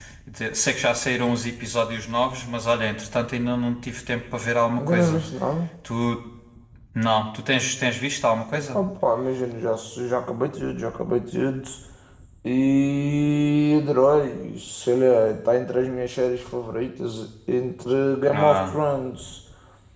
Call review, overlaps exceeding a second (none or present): none